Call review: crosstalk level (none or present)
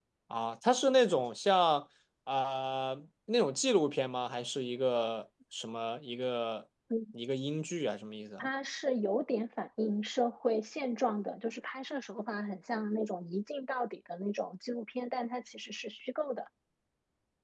none